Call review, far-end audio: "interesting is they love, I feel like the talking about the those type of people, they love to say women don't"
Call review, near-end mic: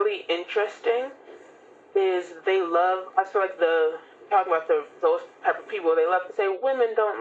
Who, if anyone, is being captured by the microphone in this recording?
echo only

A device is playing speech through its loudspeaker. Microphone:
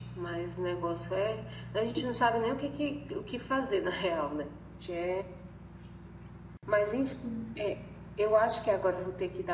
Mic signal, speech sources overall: echo only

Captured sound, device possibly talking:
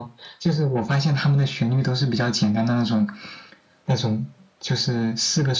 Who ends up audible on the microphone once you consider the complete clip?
echo only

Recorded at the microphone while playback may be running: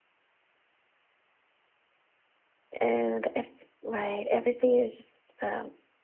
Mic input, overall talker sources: user only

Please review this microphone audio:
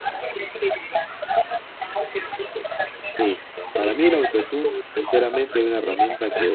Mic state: both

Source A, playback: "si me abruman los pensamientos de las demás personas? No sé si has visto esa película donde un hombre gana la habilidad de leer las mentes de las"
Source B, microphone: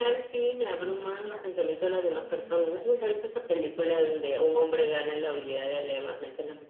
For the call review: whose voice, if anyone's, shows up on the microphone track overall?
both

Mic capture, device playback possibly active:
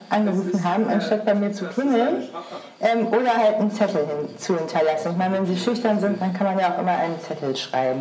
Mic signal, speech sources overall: both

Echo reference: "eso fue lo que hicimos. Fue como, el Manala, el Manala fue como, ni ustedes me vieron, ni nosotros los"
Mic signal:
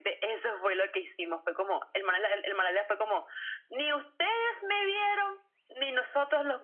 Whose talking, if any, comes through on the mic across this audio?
echo only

